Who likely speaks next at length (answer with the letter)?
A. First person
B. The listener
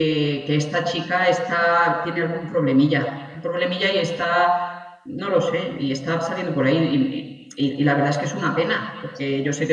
A